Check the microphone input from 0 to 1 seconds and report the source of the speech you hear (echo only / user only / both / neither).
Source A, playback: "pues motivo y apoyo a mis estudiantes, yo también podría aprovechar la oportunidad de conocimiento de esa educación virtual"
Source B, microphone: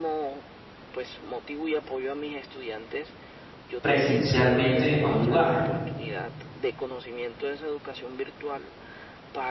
echo only